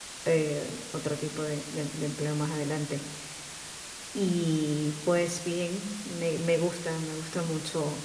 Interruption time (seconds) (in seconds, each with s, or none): none